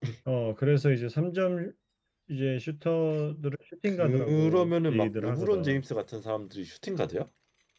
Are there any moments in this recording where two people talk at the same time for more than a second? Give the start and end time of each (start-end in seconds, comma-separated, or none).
3.8-5.8